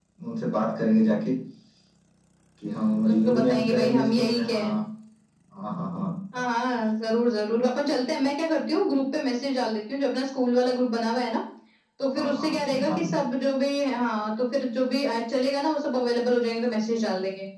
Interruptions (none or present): present